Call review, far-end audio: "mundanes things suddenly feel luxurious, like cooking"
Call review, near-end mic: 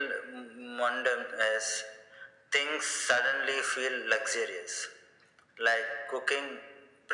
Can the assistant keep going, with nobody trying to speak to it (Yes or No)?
Yes